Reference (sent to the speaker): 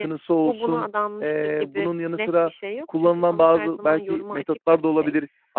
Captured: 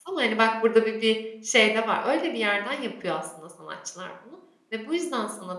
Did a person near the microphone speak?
Yes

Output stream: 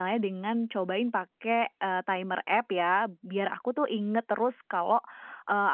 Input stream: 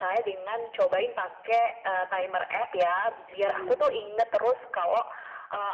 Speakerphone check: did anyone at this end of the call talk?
Yes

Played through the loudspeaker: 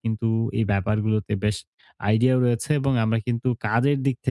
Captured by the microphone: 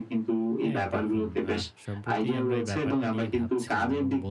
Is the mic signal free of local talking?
No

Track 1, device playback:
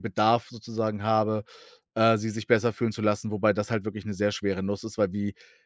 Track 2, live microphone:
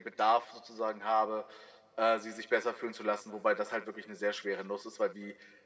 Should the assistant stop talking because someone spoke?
No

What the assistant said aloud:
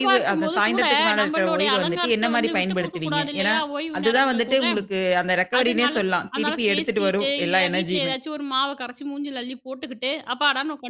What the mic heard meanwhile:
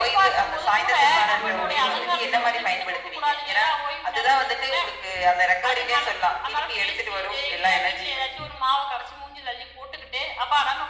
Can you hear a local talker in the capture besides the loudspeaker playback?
Yes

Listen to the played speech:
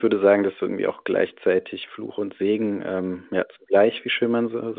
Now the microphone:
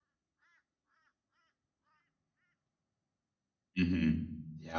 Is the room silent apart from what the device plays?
No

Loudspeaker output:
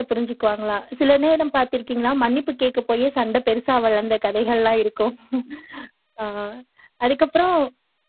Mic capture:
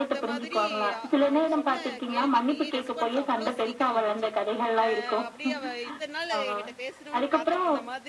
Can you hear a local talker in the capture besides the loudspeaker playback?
Yes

